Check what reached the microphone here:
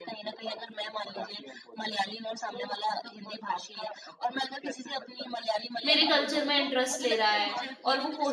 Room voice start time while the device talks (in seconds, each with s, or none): 5.8 s